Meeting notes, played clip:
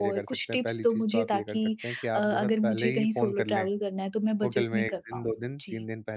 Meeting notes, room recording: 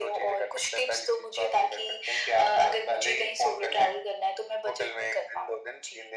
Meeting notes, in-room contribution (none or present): none